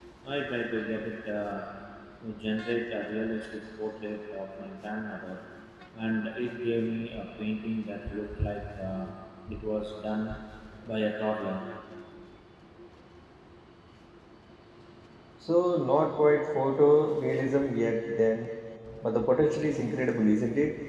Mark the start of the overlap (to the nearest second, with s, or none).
none